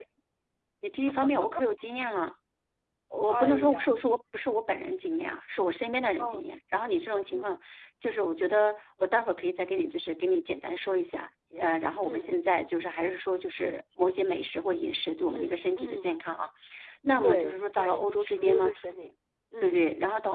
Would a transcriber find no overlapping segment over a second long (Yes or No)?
No